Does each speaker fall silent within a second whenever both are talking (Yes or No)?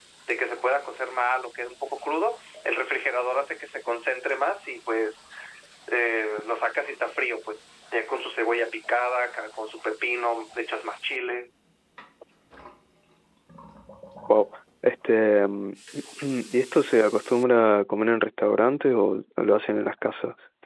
Yes